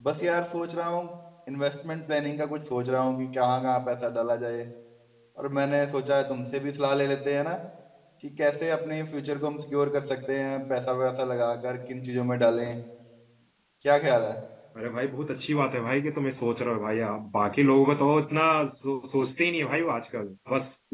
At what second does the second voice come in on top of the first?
none

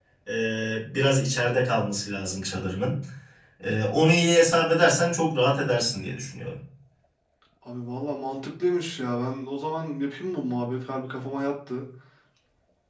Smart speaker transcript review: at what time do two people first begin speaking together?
none

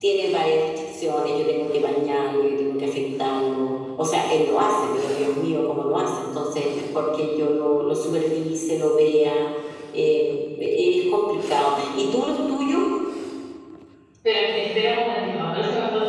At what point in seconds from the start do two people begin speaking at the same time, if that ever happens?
none

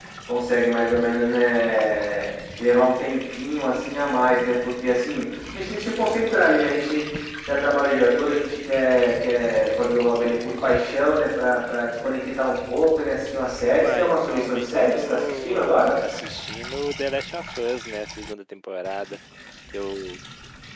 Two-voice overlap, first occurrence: 13.7 s

